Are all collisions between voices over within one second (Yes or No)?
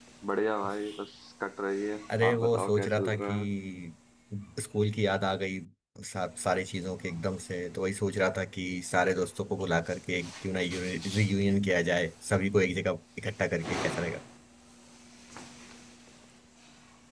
No